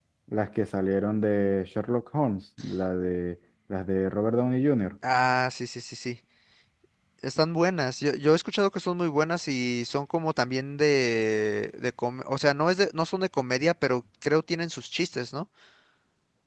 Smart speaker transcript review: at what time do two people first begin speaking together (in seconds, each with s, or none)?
none